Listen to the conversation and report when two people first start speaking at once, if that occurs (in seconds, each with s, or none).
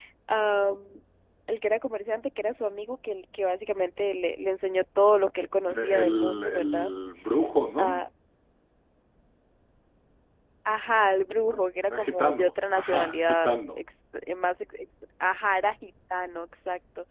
5.7 s